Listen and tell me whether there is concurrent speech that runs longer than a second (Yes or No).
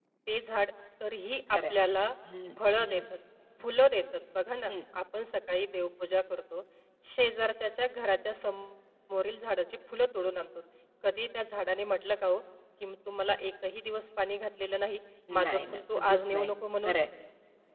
Yes